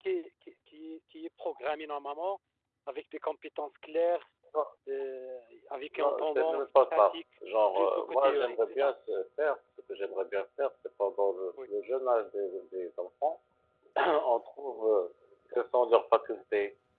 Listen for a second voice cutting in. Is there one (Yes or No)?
Yes